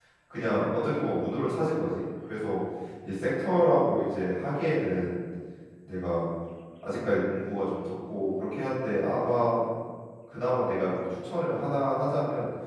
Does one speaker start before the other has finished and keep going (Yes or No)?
No